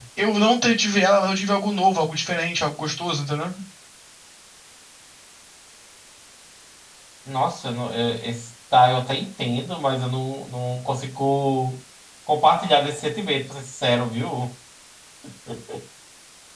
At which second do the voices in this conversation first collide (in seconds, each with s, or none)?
none